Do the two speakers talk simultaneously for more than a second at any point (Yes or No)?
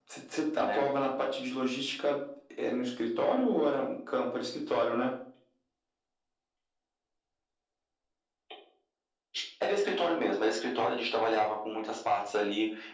No